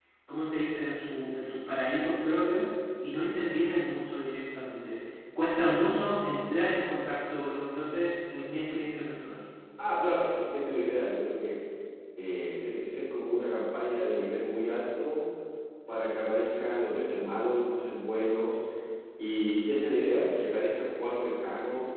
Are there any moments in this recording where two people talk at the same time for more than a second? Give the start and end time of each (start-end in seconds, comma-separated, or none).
none